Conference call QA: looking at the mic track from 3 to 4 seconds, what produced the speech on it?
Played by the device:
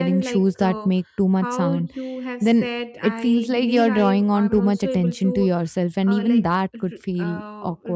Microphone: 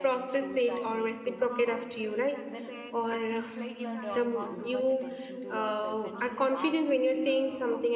both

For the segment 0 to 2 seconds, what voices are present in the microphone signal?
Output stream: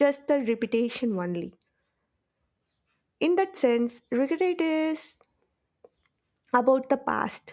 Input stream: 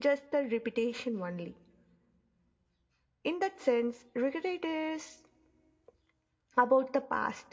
echo only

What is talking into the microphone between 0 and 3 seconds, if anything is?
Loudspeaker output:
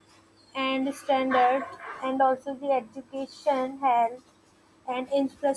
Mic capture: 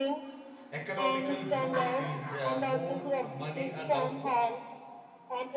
both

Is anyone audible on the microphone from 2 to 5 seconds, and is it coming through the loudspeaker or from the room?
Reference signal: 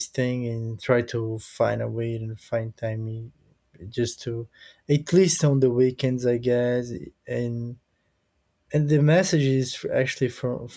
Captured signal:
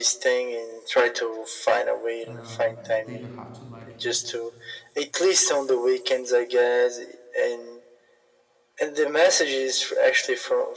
both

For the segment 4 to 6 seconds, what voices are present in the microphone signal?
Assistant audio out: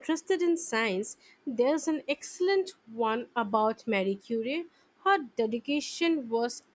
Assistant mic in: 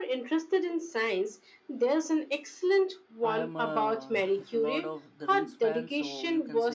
both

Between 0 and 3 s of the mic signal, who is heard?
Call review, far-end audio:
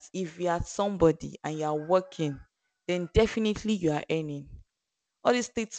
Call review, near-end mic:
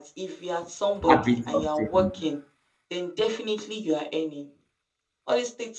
both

